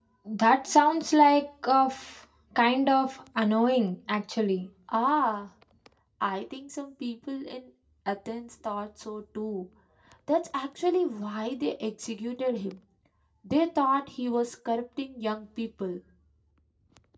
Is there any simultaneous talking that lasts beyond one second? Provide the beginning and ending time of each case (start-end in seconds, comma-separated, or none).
none